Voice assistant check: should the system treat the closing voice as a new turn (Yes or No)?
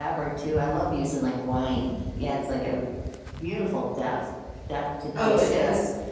Yes